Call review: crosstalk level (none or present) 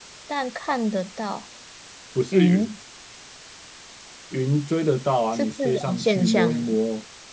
present